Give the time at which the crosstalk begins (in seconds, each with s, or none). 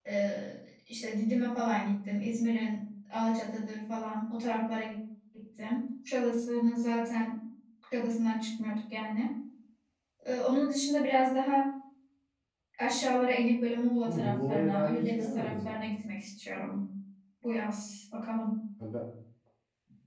14.1 s